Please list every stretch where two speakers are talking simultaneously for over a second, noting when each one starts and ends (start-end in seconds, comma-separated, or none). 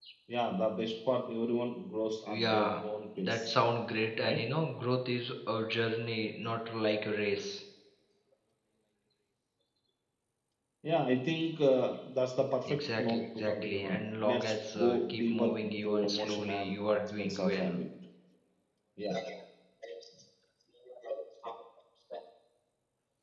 12.7-17.8